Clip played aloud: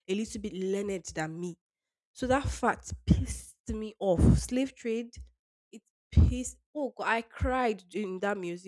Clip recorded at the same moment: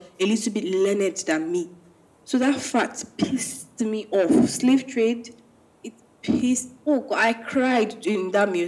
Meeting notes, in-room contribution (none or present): none